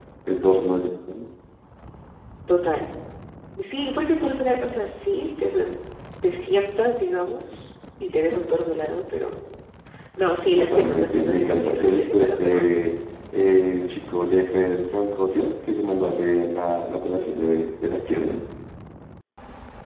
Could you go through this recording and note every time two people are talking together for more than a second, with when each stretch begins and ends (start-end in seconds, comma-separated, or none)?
10.6-12.7